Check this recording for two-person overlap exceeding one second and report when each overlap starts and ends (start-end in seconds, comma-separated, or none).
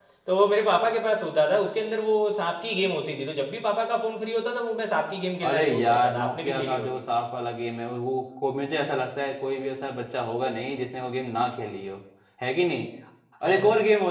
5.5-7.0